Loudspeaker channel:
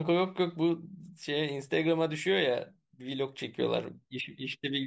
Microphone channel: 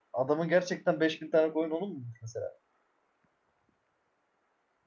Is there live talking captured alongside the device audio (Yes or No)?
Yes